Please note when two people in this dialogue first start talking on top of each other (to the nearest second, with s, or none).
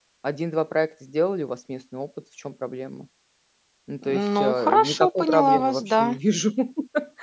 4 s